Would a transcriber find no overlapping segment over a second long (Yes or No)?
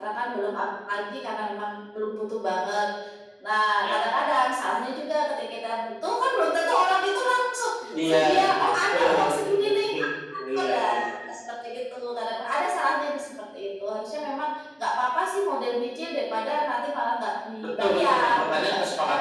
No